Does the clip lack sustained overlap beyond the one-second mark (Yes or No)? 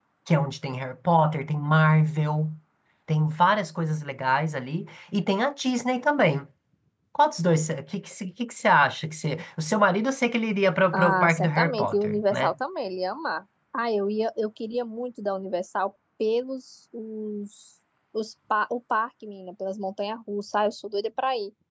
No